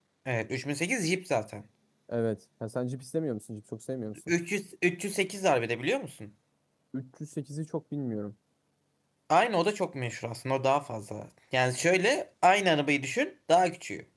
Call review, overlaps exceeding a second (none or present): none